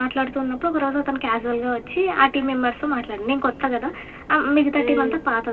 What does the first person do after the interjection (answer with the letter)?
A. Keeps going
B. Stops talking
A